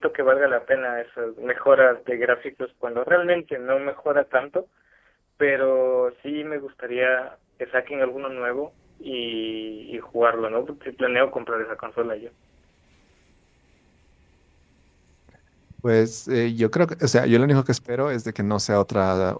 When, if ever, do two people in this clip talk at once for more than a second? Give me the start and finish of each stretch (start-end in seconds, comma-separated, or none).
none